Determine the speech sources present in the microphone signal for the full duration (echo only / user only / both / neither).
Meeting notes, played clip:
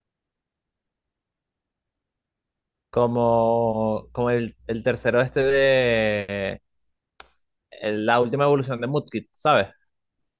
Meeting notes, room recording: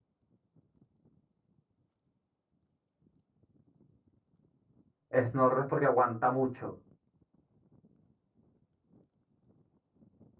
user only